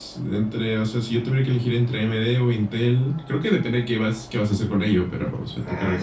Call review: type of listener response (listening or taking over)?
taking over